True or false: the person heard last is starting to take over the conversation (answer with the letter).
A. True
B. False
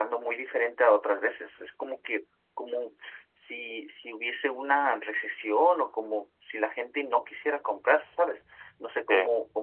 B